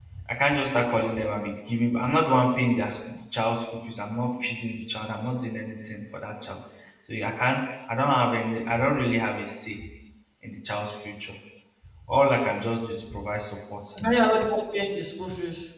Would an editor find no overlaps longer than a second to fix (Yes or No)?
Yes